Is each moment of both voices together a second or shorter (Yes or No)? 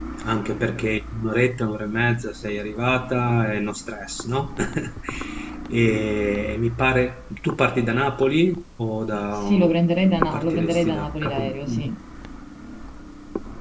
No